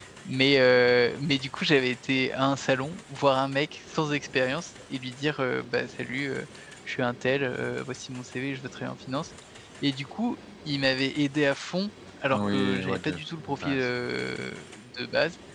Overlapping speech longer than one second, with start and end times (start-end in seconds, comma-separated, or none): 12.3-13.9